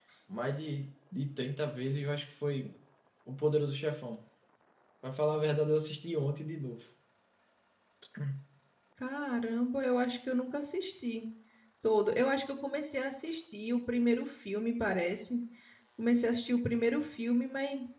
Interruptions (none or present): none